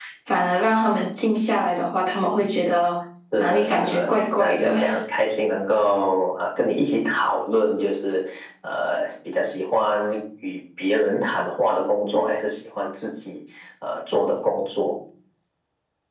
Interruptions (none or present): present